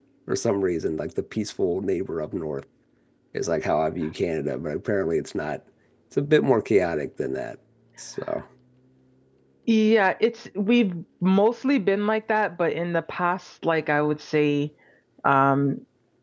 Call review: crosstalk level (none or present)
none